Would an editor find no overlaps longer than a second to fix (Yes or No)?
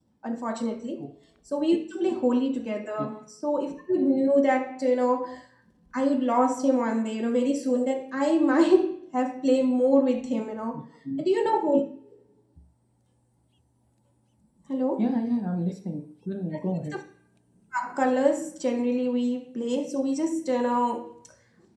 Yes